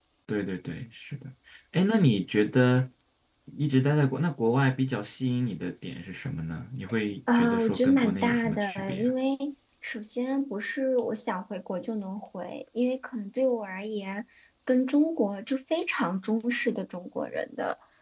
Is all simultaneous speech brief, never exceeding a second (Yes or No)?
No